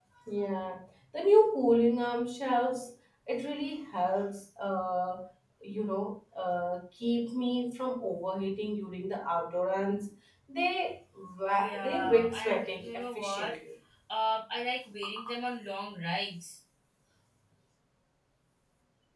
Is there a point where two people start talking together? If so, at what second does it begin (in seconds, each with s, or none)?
11.5 s